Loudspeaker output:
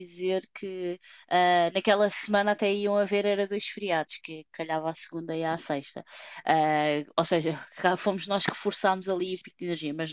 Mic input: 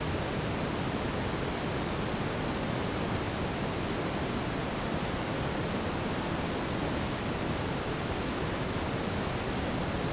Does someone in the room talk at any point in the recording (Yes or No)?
No